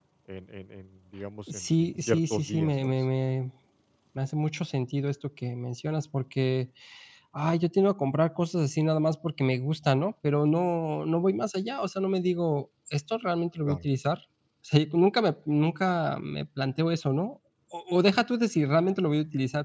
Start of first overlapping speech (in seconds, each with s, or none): 1.5 s